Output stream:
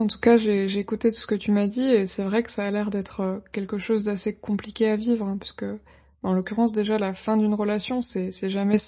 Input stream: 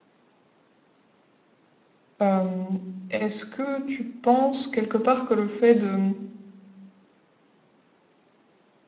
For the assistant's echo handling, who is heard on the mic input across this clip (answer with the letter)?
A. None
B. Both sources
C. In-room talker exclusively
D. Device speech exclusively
C